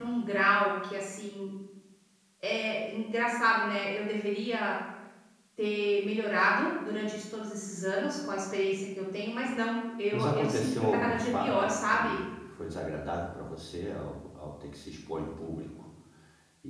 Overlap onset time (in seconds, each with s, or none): 10.1 s